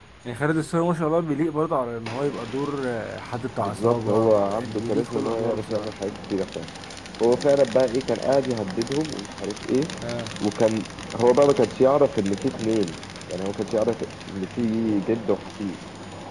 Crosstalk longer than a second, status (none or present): present